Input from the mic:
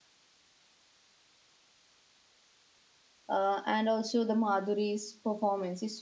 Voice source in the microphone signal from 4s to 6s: user only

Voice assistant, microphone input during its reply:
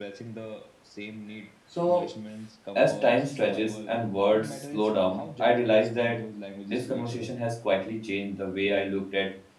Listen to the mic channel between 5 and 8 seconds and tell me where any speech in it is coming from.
both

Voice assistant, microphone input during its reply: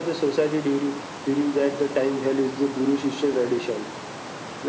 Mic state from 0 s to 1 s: echo only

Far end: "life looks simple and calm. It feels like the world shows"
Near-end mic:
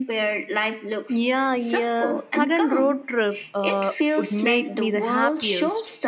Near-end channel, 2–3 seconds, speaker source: both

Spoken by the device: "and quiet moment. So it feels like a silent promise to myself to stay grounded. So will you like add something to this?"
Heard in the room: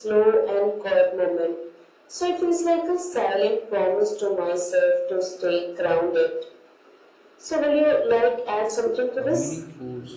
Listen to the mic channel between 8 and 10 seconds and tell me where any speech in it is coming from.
both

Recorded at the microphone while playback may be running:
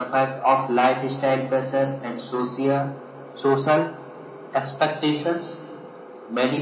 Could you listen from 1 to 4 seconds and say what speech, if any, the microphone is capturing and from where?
echo only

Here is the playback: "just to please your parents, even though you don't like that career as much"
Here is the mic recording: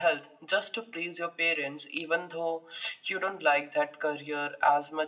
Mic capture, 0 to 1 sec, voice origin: echo only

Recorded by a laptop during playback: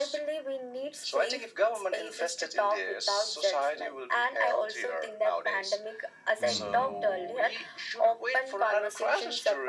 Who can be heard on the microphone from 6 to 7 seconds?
both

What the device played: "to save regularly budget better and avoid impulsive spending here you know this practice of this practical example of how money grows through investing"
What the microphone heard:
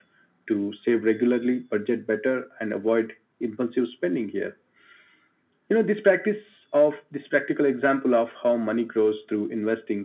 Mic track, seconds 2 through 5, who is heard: echo only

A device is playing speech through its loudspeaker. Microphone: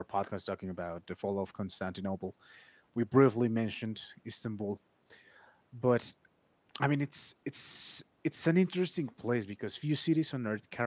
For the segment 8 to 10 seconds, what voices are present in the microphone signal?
user only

